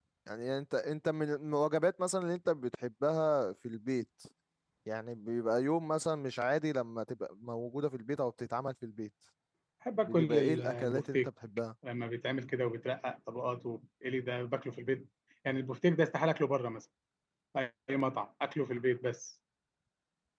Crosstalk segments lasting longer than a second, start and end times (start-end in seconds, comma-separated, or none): 10.1-11.3